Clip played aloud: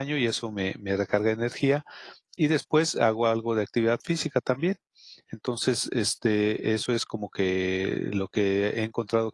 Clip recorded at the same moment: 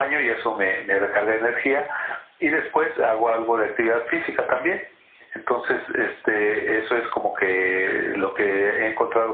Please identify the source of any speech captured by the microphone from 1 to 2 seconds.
echo only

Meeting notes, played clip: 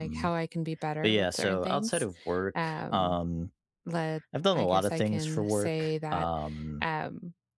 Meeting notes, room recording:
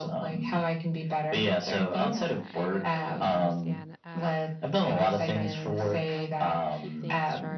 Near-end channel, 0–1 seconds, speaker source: echo only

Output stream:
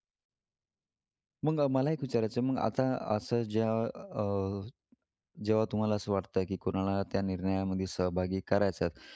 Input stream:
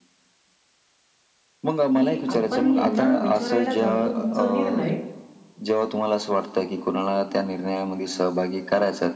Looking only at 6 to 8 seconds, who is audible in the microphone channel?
echo only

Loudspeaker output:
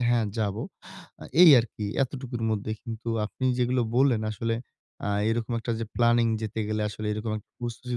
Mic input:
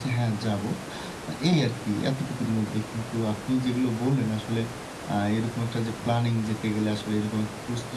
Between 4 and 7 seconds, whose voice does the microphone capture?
echo only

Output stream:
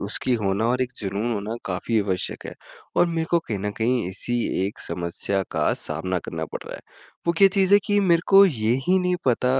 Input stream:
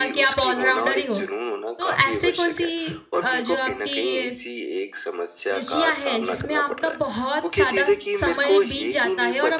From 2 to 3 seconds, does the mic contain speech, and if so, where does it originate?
both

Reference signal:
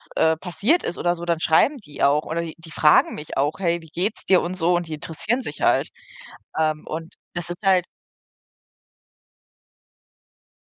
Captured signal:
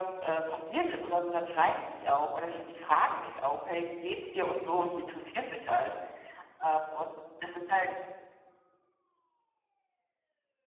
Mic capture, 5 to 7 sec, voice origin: echo only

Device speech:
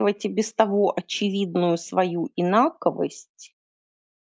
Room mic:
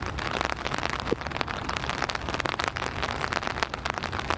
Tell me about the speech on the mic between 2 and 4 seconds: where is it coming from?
neither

